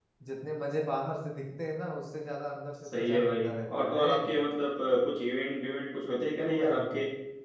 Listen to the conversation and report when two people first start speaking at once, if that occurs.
2.8 s

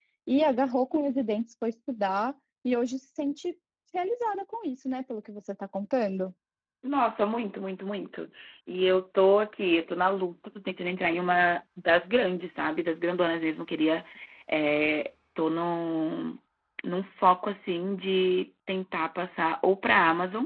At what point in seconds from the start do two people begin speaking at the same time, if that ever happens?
none

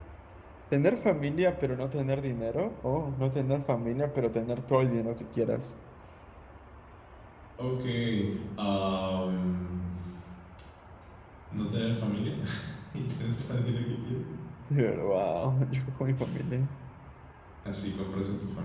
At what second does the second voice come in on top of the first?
none

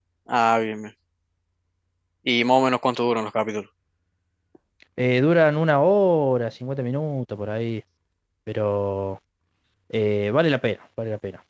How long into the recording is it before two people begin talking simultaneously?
none

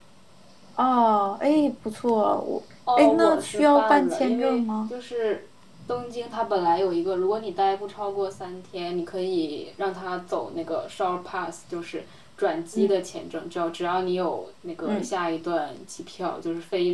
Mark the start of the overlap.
2.9 s

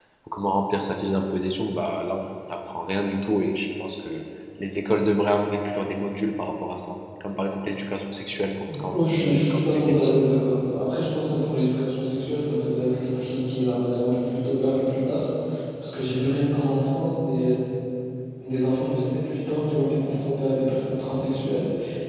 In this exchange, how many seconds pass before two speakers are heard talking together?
8.9 s

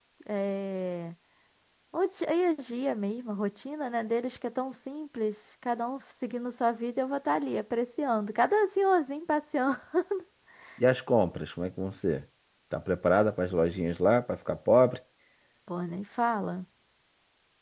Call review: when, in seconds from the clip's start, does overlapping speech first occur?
none

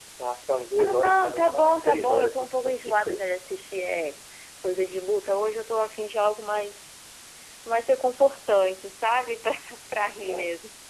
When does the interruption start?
0.8 s

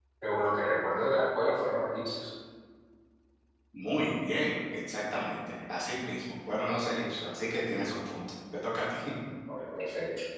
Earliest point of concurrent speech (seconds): none

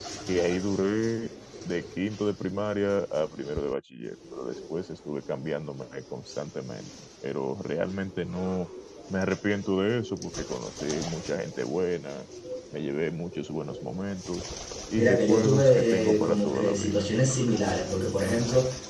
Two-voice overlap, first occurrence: 15.0 s

